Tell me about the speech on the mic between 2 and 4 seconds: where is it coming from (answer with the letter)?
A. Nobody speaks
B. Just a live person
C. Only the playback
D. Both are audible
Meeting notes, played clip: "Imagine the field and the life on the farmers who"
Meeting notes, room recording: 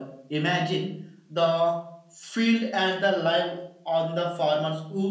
C